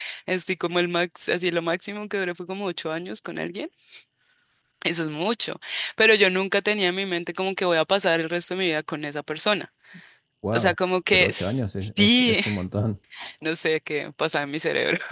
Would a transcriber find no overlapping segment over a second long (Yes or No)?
No